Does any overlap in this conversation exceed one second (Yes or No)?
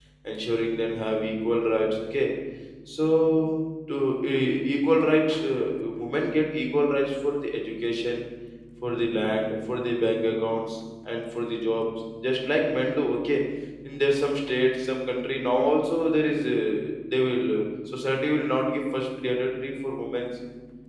No